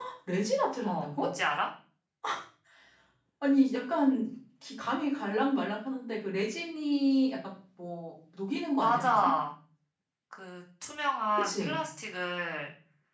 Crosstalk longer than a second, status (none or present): none